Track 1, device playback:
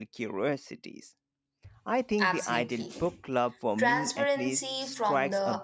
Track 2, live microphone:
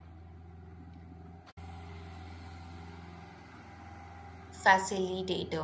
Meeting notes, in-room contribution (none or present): present